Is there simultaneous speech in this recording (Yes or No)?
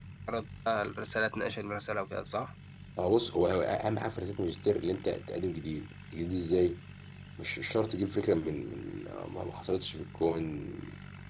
No